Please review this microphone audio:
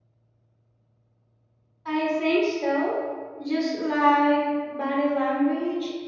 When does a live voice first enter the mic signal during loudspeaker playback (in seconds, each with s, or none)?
1.8 s